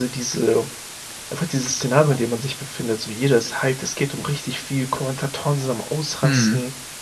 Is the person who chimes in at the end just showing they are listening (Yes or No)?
Yes